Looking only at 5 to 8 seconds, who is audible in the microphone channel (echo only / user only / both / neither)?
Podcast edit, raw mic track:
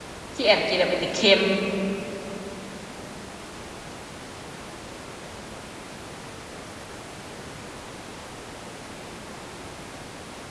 neither